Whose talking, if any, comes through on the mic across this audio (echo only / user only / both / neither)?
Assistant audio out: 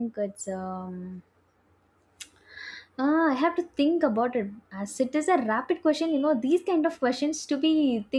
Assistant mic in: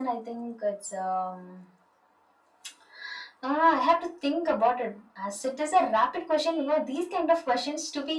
echo only